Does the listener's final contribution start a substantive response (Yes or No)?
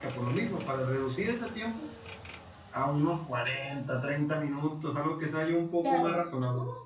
Yes